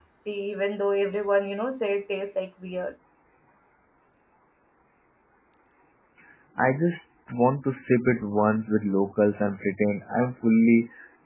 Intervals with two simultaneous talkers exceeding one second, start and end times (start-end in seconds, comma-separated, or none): none